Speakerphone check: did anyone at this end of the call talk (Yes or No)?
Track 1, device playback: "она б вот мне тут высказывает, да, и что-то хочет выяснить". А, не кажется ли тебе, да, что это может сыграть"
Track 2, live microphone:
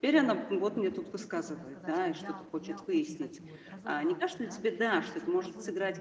Yes